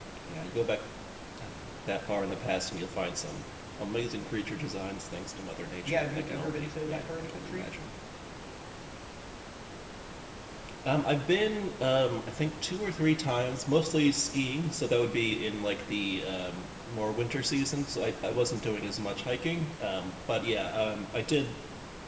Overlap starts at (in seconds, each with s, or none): 5.8 s